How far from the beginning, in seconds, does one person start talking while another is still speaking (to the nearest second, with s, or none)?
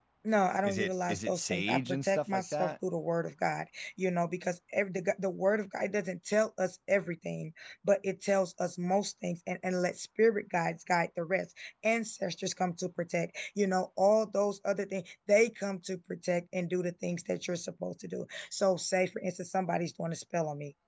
1 s